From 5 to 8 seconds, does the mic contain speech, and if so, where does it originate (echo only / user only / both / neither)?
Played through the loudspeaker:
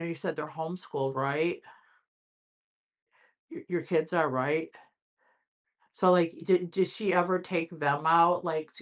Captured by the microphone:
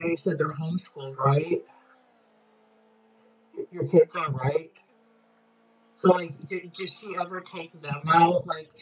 echo only